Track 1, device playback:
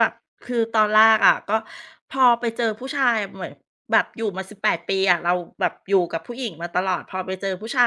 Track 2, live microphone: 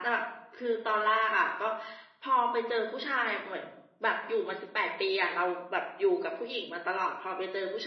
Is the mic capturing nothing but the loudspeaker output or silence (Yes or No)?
Yes